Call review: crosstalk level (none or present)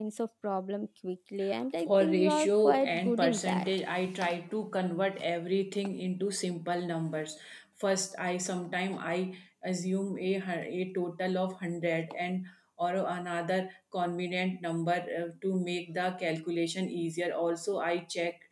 present